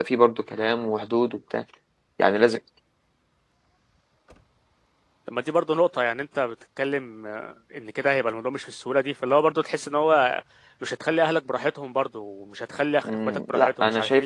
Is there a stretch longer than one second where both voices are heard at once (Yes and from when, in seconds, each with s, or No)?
Yes, from 13.0 s